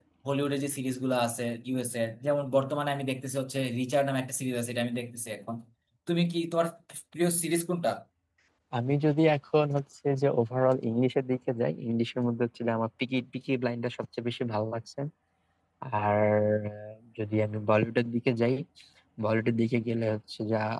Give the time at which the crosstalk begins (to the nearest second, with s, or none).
none